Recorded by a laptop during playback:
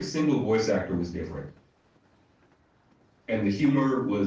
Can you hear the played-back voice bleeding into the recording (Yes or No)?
No